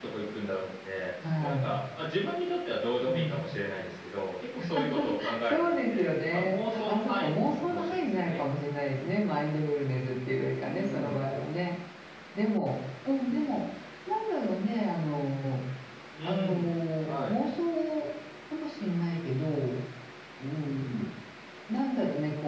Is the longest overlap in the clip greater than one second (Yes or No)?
Yes